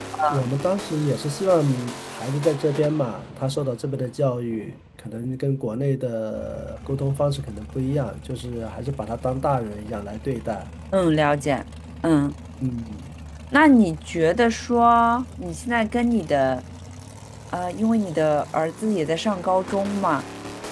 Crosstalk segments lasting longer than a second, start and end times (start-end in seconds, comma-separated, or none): none